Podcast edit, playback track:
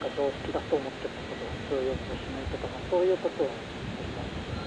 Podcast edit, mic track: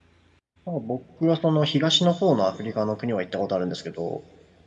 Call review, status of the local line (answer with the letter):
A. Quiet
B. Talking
B